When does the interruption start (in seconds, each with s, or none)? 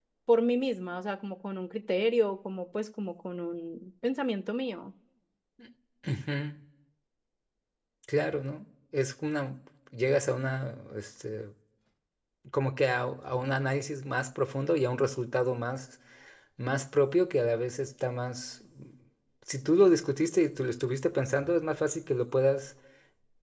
none